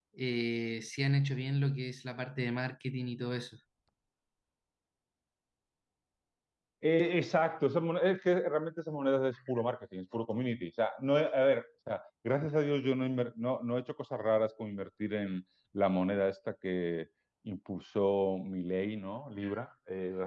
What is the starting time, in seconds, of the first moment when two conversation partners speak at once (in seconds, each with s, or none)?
none